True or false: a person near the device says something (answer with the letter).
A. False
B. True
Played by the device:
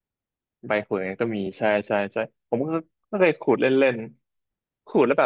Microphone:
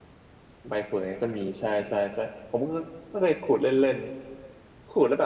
A